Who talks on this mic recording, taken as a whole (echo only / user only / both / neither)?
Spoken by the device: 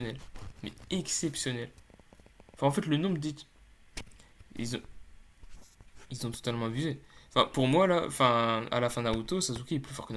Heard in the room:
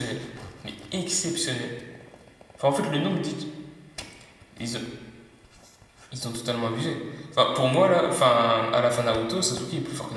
echo only